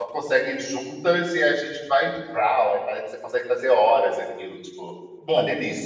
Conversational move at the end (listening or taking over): taking over